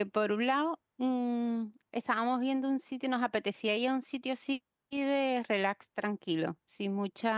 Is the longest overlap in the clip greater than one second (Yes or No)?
No